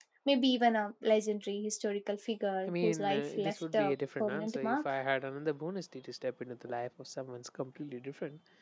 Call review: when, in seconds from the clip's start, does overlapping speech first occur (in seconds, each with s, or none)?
2.7 s